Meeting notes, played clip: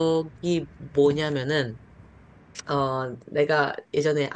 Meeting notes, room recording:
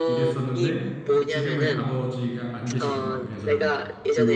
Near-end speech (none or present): present